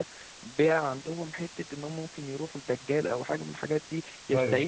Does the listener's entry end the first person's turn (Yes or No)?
No